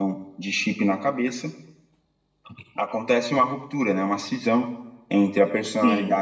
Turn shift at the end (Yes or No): No